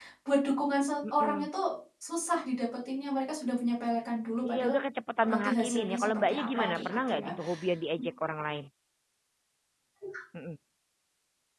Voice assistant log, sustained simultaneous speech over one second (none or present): present